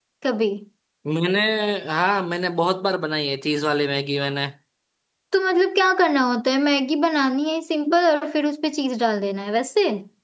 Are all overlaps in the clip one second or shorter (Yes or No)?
Yes